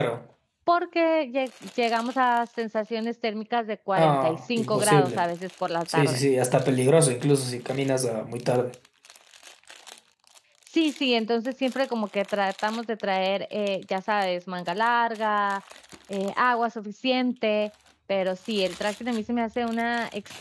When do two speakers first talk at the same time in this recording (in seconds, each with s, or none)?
4.0 s